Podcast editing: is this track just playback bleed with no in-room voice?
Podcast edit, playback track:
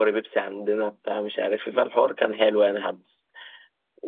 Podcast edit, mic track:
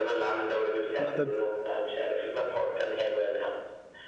No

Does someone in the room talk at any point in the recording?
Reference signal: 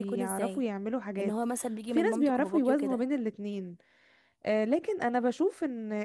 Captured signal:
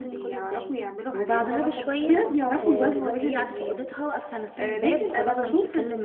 Yes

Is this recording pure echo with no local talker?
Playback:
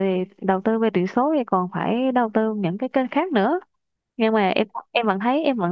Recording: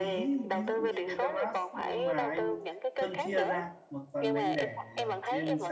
No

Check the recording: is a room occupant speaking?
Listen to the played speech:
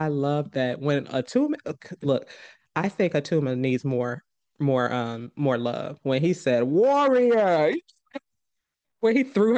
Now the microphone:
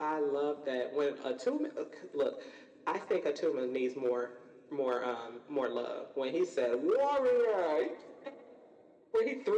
No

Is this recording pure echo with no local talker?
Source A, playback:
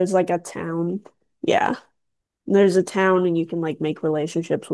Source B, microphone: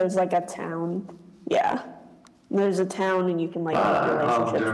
No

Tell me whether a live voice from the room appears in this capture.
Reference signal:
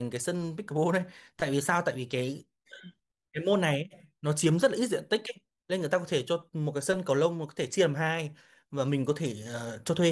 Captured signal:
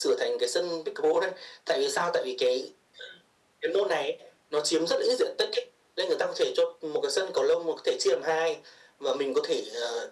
No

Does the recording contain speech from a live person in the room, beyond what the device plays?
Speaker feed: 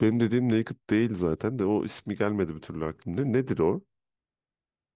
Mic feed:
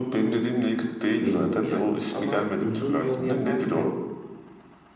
Yes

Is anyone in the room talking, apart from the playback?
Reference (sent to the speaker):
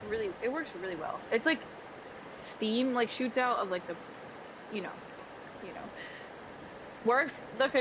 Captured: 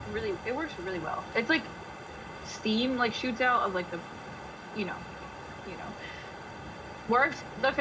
No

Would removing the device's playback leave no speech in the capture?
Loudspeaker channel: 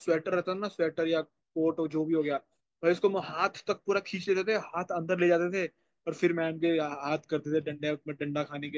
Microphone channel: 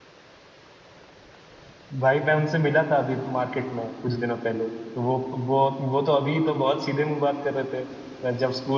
No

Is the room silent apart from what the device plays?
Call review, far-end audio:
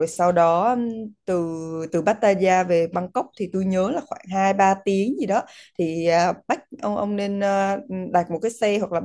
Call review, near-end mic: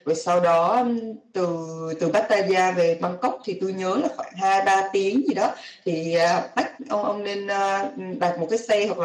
Yes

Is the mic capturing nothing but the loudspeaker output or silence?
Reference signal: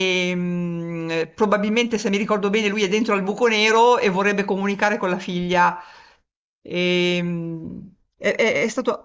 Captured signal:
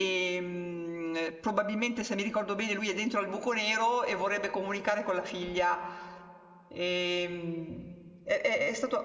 Yes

